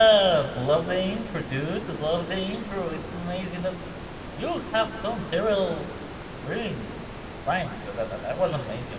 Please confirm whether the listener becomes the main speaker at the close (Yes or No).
No